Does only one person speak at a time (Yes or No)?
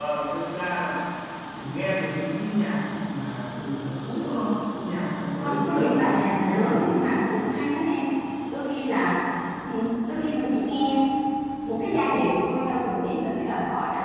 No